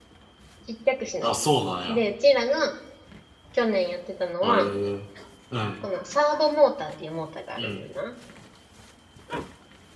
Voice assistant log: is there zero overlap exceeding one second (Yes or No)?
Yes